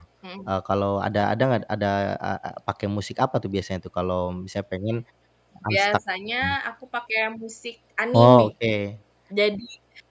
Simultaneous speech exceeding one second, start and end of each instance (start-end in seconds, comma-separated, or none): none